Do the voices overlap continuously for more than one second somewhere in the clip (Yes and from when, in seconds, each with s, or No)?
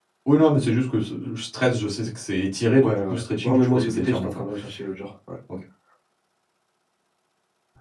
Yes, from 2.8 s